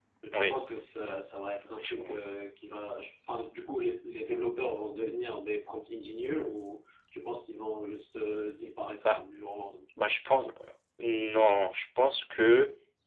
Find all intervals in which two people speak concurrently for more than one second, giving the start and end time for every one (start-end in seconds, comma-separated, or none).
none